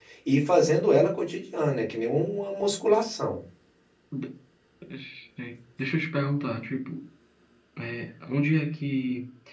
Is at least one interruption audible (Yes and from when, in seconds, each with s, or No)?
No